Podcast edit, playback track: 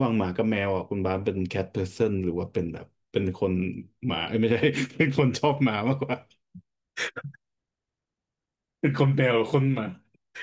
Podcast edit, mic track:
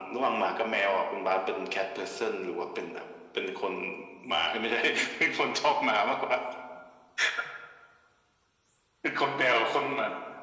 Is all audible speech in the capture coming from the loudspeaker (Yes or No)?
Yes